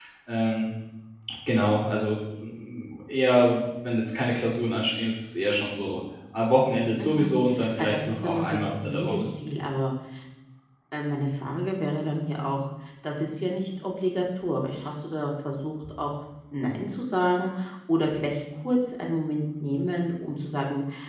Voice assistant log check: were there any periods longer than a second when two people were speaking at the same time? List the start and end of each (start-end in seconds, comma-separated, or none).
7.8-9.3